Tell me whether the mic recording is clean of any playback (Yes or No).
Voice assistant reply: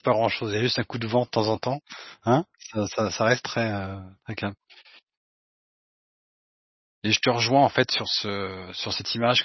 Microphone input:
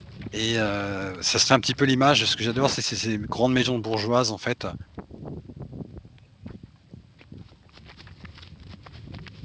Yes